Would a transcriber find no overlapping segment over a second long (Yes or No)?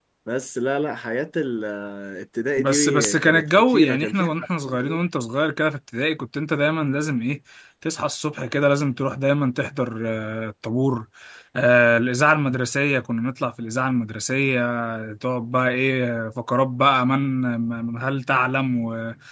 No